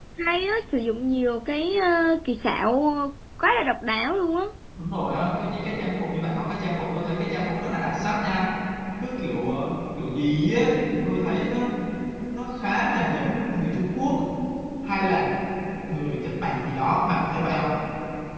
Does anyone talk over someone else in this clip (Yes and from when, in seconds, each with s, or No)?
No